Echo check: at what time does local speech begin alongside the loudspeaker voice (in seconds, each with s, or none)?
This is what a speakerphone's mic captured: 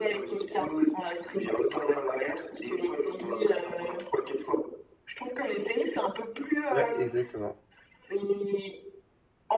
6.7 s